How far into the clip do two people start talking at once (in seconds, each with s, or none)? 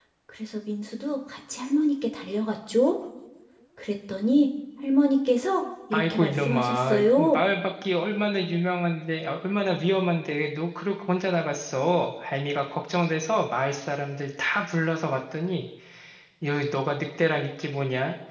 5.9 s